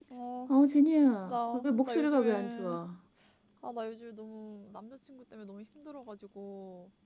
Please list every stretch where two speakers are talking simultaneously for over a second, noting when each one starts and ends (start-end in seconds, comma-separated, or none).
1.3-2.8